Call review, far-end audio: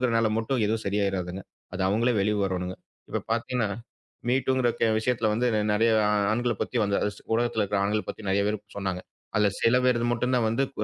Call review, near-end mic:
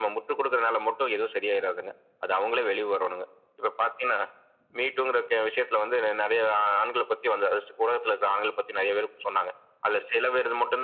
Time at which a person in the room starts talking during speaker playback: none

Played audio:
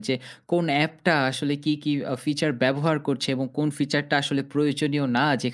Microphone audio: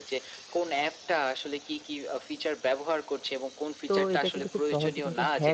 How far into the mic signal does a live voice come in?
3.9 s

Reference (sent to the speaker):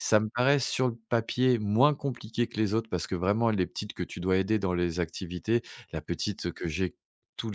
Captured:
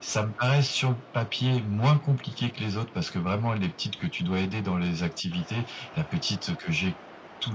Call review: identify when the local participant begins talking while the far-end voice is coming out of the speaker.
none

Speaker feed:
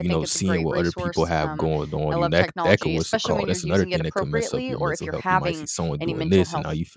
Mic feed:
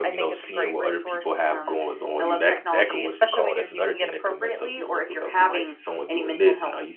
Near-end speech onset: none

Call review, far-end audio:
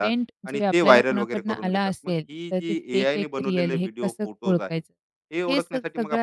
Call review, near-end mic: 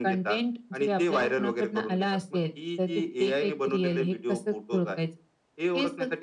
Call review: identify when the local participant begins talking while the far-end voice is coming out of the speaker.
none

